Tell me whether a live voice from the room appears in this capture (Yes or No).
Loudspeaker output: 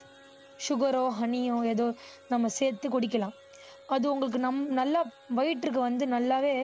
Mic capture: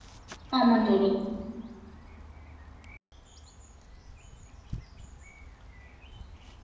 Yes